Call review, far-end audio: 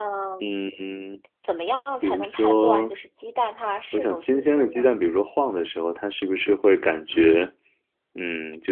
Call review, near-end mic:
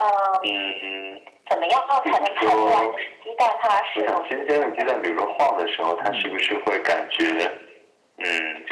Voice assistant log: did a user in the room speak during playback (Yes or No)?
Yes